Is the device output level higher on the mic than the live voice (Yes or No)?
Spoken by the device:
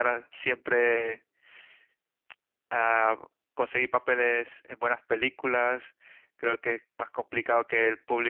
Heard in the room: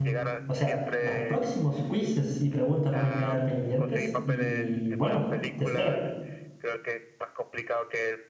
No